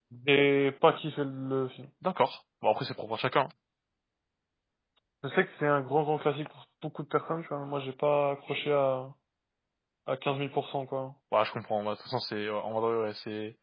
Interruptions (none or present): none